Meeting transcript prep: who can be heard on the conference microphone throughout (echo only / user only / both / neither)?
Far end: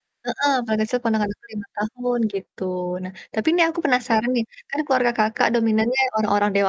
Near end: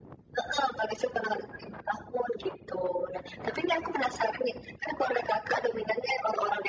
echo only